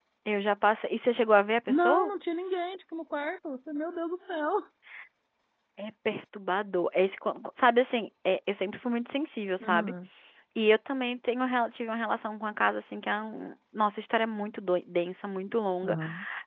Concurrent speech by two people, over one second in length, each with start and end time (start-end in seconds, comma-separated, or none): none